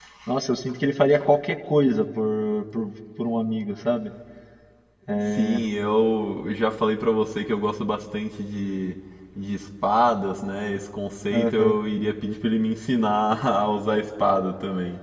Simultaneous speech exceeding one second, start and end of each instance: none

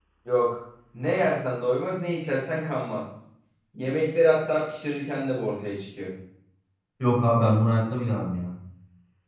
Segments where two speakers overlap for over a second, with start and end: none

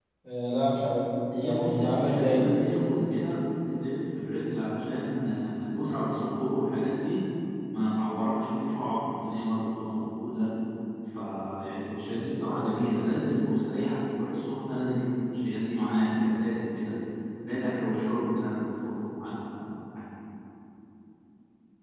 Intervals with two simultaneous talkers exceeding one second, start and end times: 1.3-2.5

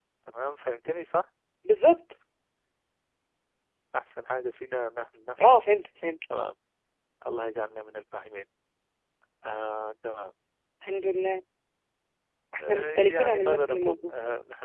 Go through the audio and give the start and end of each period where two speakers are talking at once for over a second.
12.7-14.0

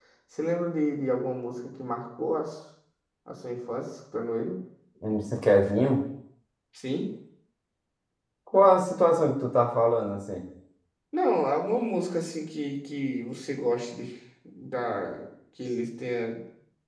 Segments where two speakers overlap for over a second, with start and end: none

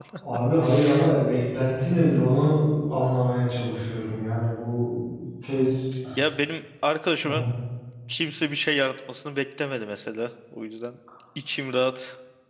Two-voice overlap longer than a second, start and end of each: none

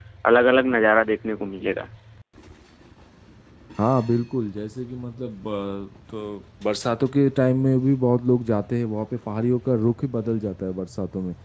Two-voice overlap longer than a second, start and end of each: none

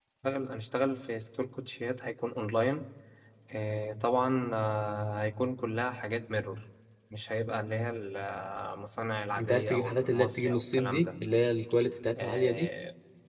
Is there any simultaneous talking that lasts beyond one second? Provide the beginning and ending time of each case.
9.4-11.1

